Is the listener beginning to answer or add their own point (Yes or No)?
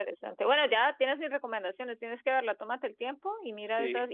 No